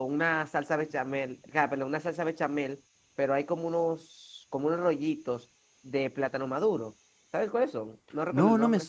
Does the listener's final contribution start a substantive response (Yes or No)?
Yes